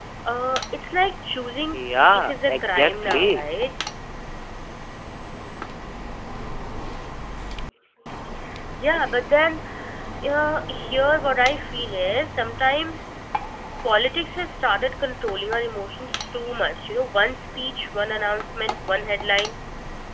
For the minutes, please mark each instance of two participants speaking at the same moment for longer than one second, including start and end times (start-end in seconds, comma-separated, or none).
1.7-3.5